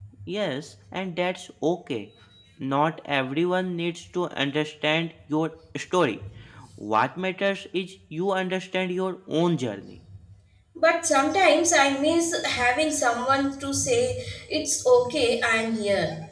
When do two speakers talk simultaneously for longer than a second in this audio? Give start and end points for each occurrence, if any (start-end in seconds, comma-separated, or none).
none